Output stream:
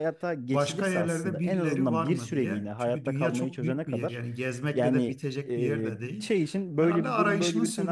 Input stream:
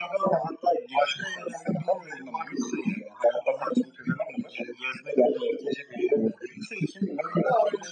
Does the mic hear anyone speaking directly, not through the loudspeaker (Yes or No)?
No